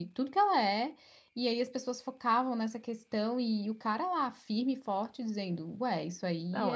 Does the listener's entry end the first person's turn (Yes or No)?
Yes